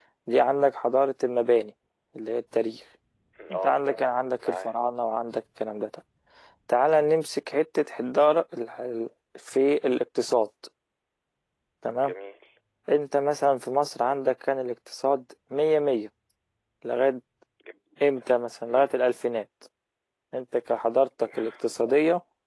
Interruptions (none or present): present